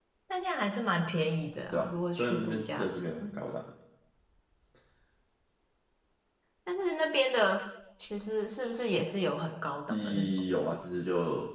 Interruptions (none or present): present